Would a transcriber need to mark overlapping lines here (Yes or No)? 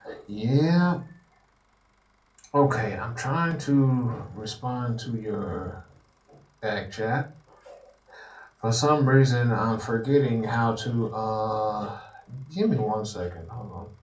No